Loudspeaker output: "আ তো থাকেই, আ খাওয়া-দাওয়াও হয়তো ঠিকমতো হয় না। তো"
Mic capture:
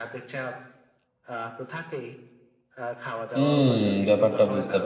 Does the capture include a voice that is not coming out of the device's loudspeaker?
Yes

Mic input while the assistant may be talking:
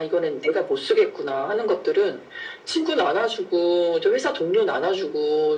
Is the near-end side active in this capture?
No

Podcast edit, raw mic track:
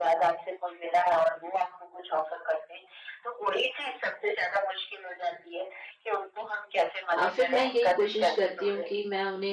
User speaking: Yes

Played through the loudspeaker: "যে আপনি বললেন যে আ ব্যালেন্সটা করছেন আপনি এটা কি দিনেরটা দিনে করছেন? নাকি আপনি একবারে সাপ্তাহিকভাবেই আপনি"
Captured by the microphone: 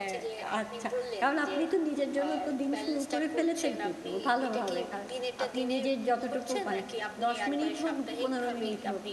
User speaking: Yes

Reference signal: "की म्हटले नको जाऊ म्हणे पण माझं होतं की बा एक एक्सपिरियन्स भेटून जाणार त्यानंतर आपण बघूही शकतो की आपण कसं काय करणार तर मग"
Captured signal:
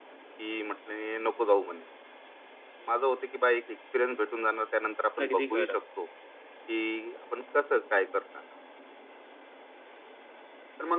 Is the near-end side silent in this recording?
No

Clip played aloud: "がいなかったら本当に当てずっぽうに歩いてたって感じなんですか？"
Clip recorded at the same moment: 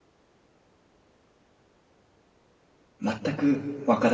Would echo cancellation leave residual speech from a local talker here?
Yes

